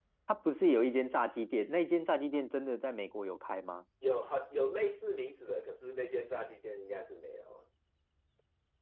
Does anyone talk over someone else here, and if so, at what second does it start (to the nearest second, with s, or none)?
none